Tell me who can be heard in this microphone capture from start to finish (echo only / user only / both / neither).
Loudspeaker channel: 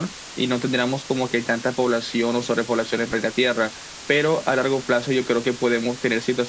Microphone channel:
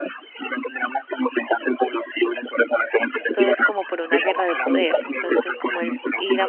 both